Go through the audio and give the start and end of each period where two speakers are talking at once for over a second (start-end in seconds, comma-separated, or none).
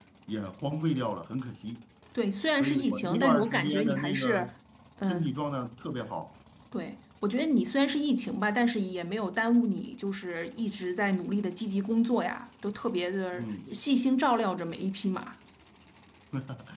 2.6-4.4